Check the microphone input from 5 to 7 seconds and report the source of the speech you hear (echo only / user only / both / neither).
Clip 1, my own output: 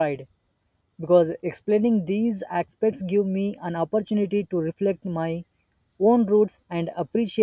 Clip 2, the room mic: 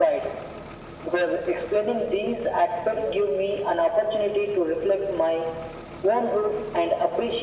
echo only